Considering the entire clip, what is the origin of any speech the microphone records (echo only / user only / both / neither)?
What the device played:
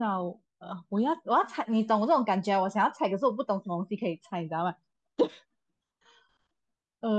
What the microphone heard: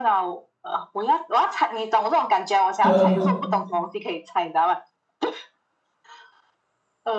both